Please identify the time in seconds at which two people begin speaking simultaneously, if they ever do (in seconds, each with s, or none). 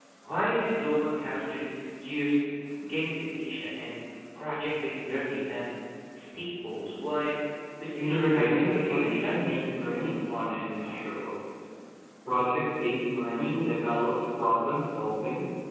8.0 s